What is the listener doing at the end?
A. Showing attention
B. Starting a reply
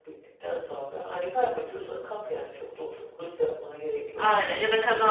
B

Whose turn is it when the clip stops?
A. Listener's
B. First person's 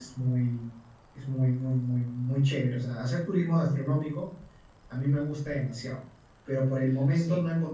B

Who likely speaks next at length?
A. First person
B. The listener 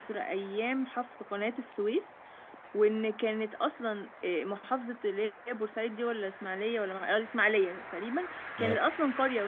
A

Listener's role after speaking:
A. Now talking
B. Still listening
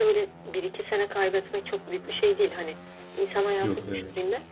B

